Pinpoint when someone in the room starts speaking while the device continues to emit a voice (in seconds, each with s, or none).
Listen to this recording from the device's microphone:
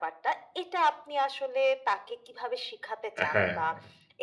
3.2 s